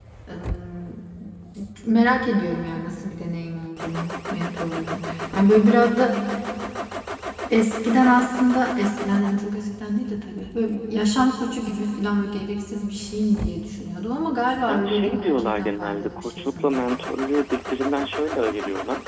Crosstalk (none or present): present